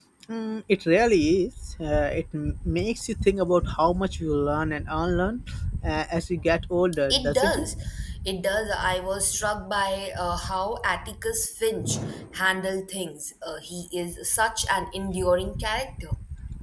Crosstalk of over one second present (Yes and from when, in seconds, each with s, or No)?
No